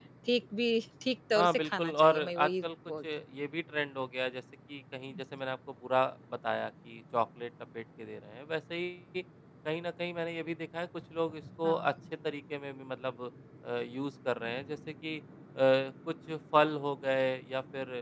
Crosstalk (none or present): present